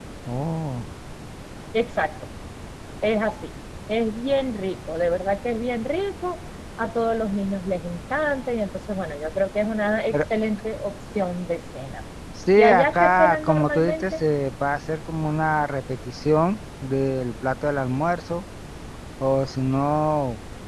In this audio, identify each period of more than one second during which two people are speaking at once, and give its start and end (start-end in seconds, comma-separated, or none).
12.6-14.2